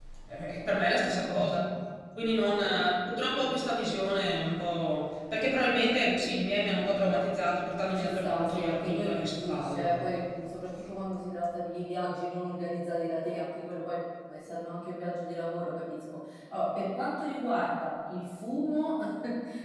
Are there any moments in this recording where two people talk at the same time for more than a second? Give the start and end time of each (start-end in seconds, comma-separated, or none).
7.9-10.0